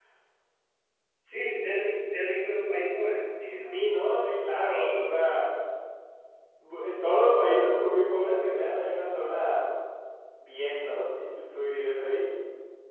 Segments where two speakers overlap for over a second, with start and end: none

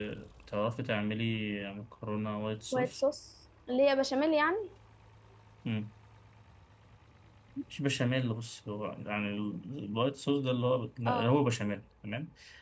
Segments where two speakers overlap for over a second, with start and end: none

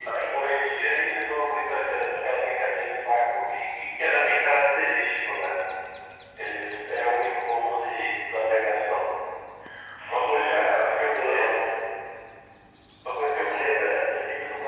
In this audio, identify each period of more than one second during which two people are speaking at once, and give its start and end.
10.1-11.7

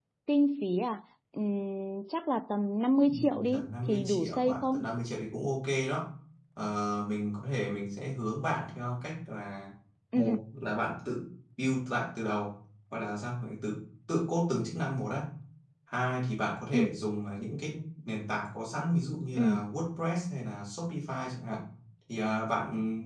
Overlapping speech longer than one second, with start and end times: 3.1-4.9

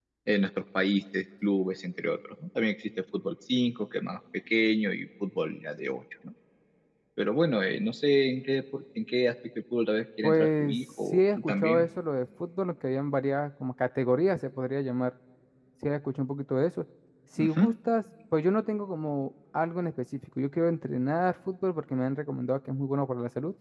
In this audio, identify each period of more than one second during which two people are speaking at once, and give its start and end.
10.2-11.9

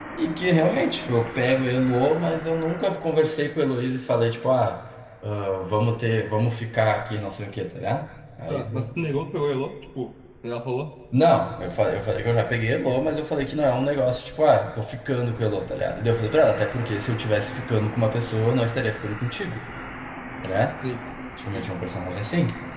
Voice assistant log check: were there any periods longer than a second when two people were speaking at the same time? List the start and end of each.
none

